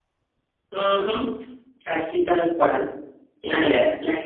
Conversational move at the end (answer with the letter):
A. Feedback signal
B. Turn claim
A